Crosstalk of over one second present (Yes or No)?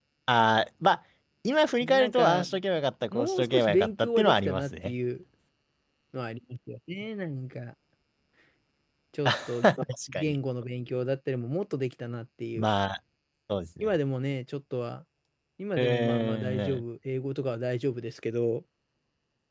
Yes